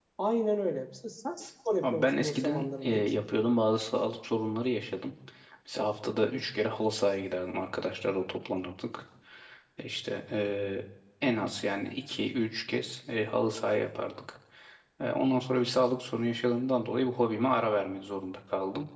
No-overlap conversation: No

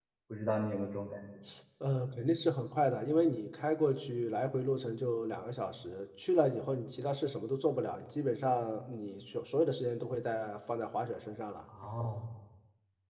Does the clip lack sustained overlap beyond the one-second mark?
Yes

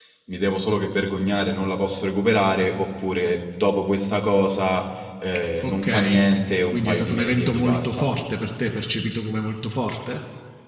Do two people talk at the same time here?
Yes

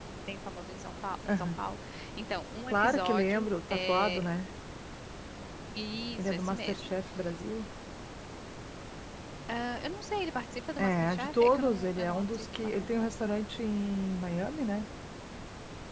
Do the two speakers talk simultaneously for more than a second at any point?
Yes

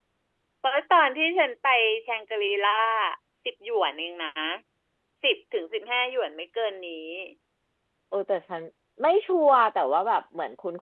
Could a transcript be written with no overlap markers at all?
Yes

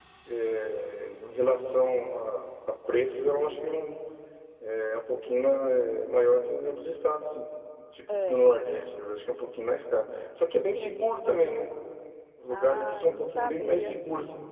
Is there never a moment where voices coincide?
No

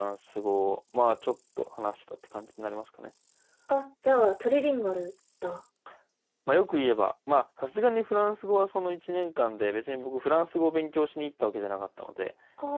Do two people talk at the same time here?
No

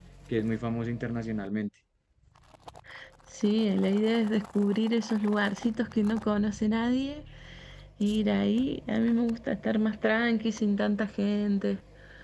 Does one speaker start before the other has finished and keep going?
No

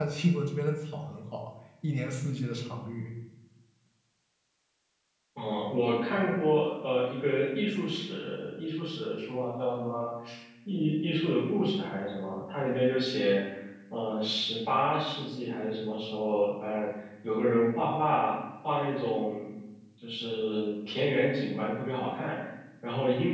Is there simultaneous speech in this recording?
No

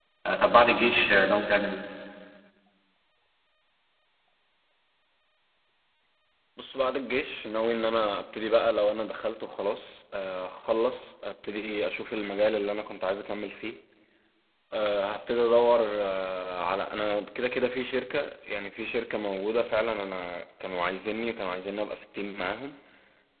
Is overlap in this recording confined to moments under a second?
Yes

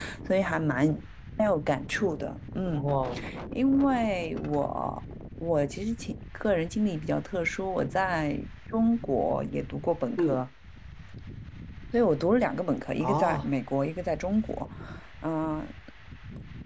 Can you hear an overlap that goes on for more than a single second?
No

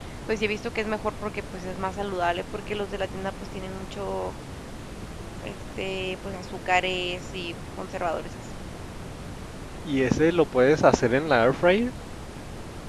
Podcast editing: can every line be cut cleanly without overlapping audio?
Yes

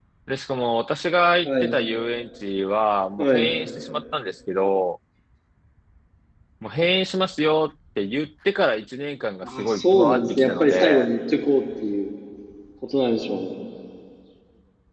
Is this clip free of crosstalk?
No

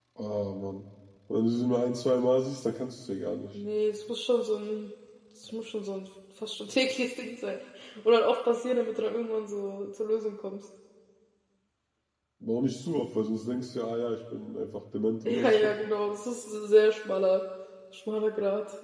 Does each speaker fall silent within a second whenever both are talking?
Yes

